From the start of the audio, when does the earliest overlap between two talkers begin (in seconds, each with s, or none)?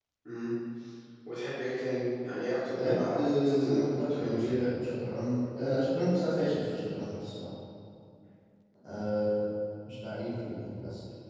2.7 s